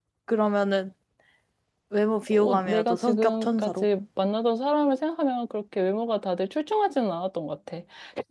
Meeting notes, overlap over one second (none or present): present